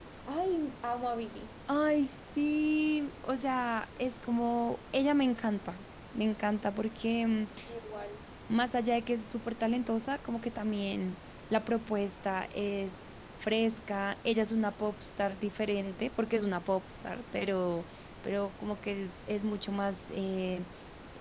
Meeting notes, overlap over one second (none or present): none